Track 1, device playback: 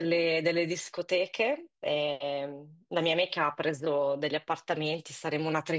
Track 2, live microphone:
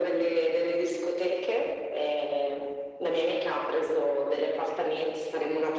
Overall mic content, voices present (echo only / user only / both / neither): echo only